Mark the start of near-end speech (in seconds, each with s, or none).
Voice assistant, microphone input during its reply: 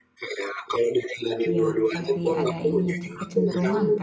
1.4 s